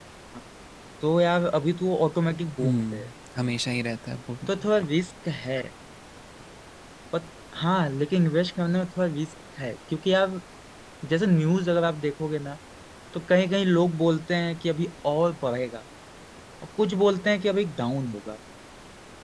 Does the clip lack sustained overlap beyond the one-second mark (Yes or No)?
Yes